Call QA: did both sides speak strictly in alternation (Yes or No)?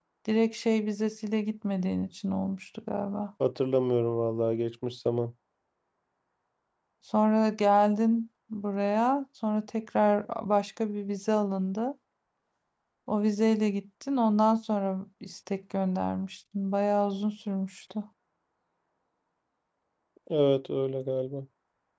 Yes